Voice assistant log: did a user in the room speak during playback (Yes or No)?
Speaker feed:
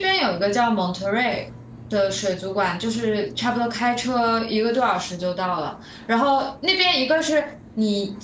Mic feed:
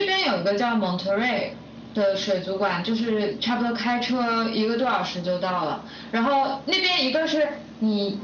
No